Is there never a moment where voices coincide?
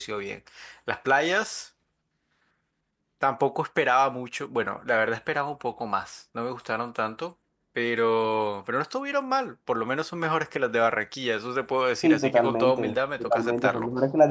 No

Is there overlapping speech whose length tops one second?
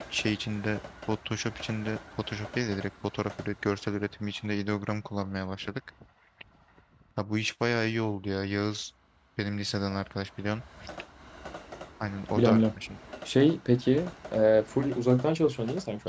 No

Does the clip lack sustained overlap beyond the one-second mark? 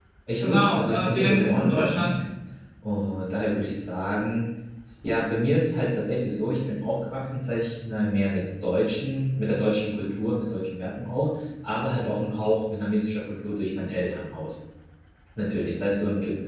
No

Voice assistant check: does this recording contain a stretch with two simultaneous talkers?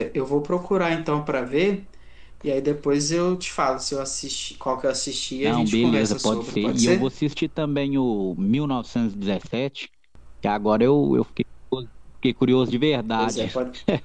Yes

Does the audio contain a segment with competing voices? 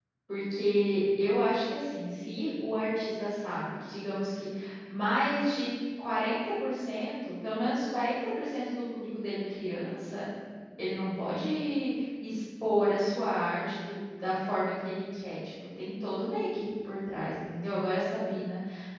No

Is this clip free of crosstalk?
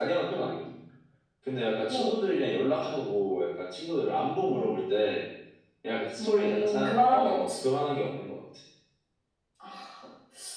No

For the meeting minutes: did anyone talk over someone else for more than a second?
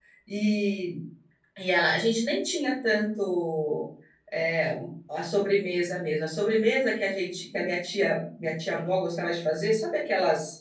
No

